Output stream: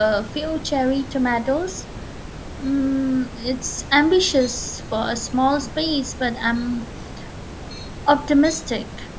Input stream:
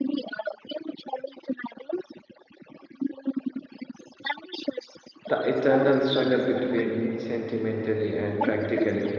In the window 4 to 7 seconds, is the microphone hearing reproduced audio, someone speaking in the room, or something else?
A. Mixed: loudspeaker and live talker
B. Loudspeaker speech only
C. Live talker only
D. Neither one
A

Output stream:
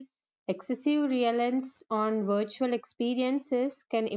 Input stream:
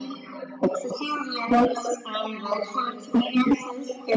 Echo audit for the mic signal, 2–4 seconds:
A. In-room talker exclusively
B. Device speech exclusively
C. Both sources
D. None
B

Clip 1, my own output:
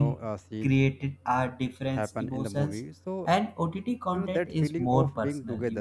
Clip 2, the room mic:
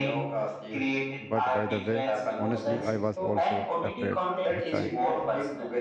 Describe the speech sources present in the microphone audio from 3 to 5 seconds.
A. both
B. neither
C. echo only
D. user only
A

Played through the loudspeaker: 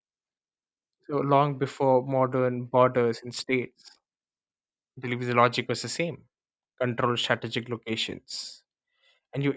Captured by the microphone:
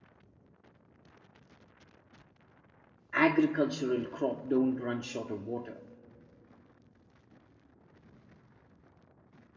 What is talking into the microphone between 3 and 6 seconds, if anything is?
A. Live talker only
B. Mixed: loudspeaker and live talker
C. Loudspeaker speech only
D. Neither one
A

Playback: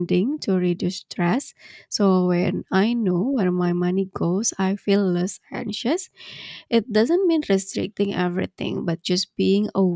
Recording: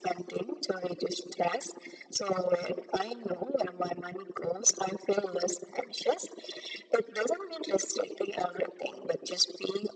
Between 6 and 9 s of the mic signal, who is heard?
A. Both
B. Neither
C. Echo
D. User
C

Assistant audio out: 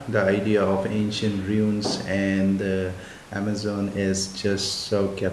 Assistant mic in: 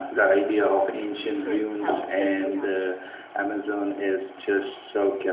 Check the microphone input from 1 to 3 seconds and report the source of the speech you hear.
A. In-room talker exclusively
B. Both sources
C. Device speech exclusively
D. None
B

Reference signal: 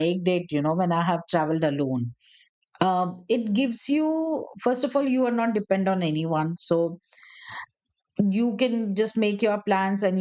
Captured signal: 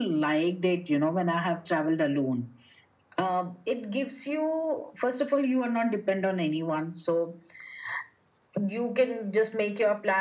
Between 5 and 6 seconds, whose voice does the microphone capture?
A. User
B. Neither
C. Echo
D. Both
C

